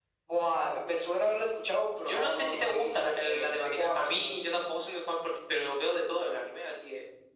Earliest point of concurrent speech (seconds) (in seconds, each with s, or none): 1.9 s